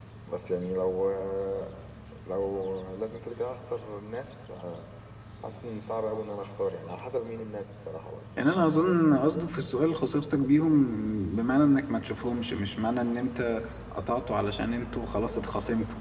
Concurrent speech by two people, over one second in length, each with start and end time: none

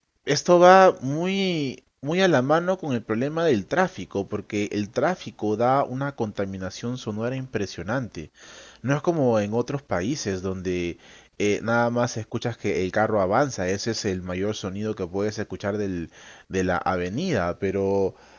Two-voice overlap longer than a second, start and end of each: none

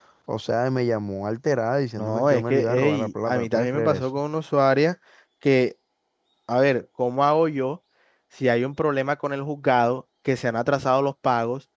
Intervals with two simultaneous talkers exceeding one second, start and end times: 2.0-4.1

